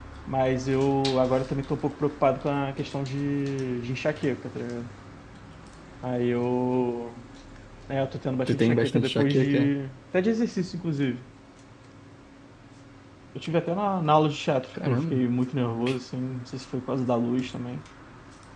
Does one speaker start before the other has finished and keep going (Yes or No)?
Yes